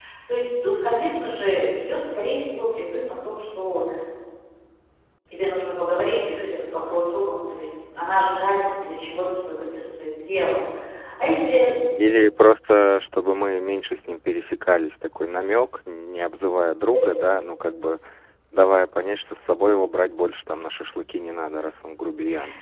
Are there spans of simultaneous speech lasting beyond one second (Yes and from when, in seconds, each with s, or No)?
No